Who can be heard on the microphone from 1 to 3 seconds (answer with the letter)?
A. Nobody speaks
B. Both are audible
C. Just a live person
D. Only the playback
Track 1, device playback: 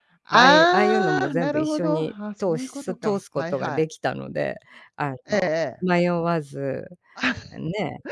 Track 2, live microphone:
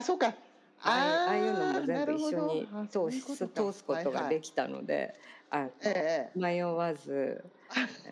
D